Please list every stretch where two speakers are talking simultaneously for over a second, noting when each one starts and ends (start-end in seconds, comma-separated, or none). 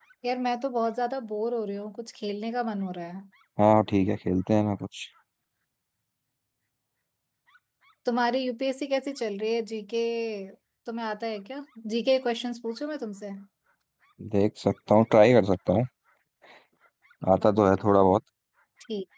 none